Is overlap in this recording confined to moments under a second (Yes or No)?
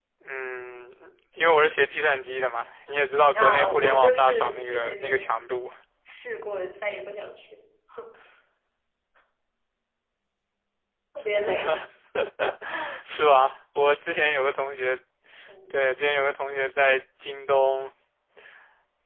No